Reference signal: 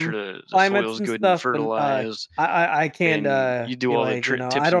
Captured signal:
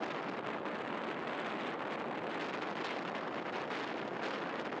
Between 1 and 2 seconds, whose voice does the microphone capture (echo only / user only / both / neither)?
neither